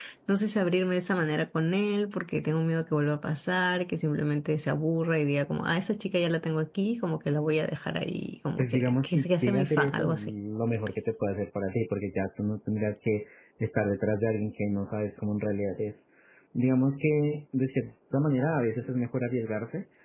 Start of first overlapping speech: 8.6 s

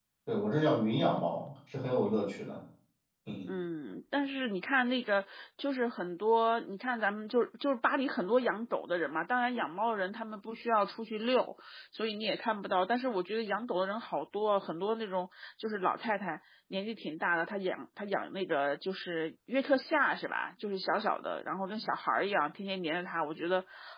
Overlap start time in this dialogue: none

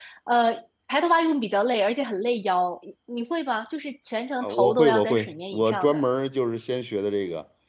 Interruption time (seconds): 4.4 s

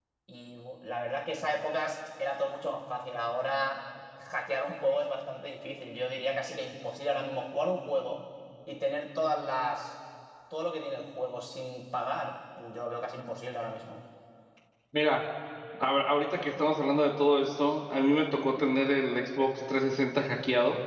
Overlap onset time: none

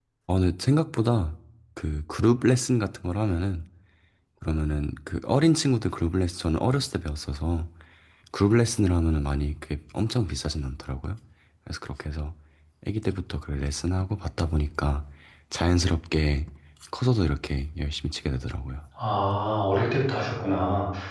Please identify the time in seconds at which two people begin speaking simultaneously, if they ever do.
none

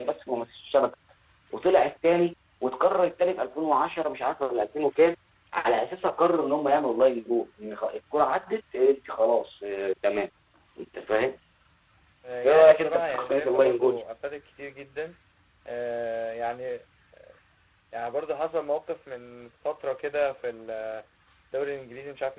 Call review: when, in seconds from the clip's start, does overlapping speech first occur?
12.4 s

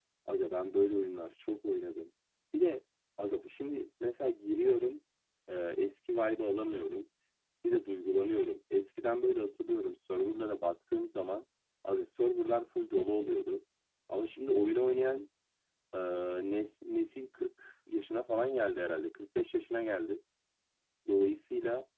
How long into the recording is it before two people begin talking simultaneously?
none

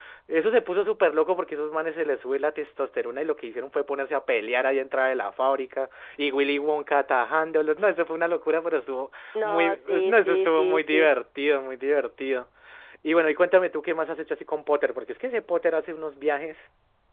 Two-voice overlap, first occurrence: 9.3 s

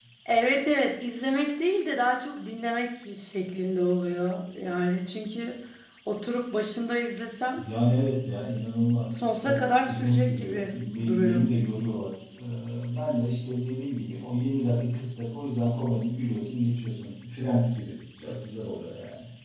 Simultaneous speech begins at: 9.1 s

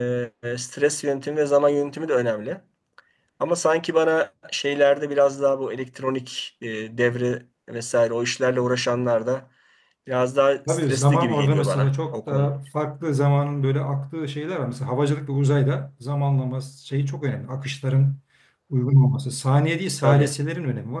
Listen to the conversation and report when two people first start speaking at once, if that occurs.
10.7 s

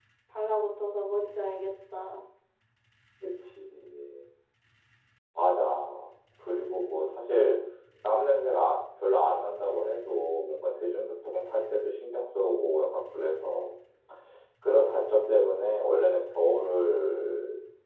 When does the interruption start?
none

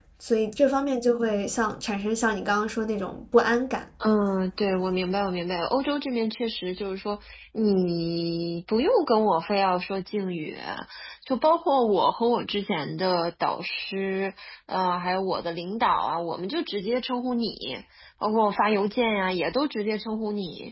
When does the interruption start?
none

